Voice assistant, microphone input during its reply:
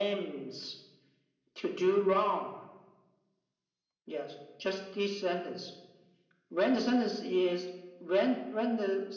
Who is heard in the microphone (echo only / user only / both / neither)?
echo only